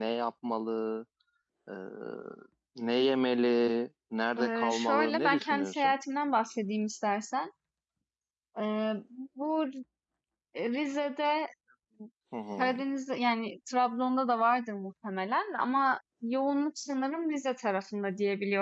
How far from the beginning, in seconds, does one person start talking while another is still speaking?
4.4 s

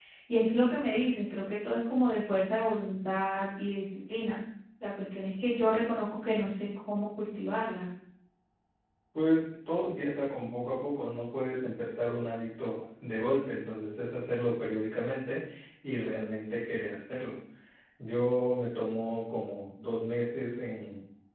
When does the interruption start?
none

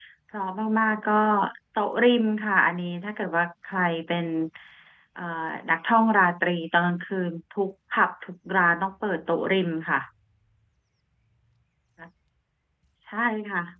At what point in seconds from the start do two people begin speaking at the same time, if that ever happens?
none

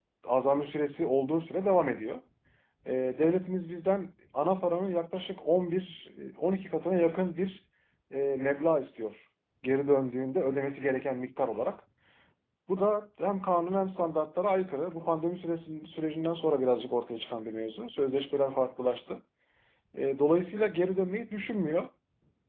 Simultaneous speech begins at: none

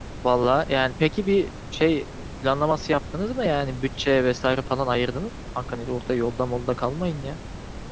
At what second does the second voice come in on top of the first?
none

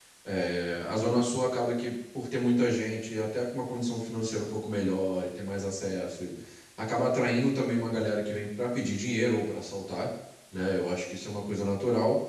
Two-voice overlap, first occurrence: none

